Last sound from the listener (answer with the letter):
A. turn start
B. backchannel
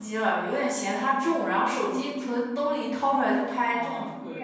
A